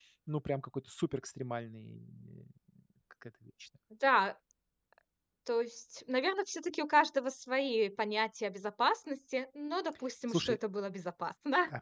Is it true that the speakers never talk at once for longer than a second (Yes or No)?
Yes